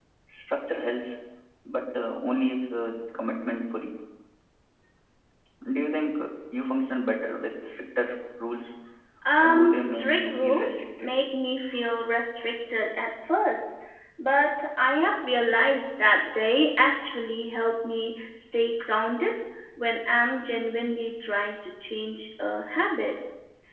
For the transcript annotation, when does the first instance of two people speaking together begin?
9 s

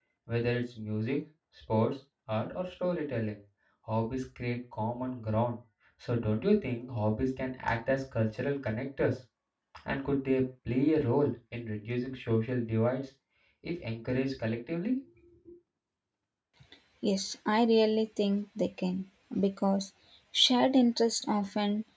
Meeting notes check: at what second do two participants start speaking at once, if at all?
none

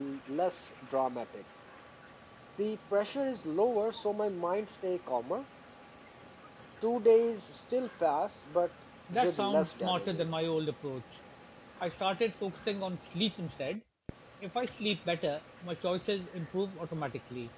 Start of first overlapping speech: 9 s

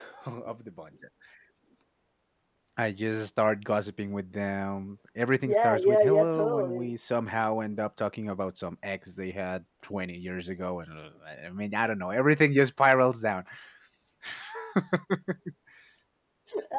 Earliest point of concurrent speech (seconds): 5 s

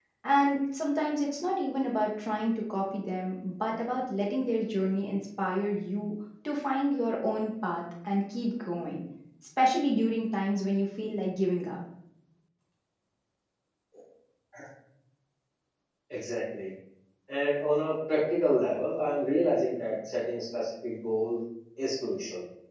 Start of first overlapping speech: none

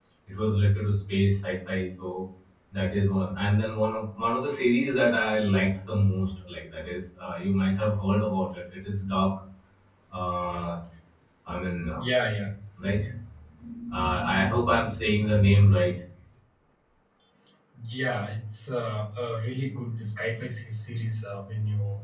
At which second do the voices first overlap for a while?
none

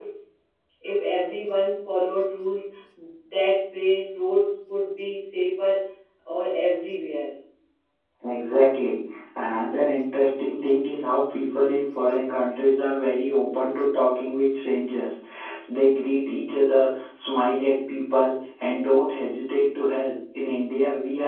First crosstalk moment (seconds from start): none

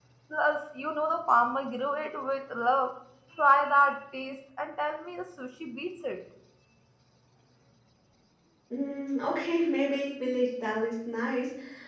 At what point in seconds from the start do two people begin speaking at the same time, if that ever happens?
none

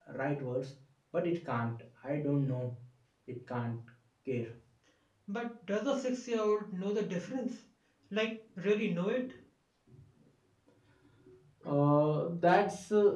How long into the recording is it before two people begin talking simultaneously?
none

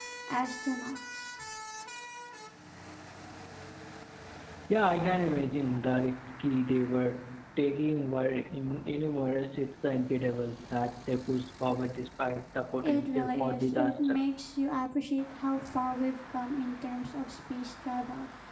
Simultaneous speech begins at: 13 s

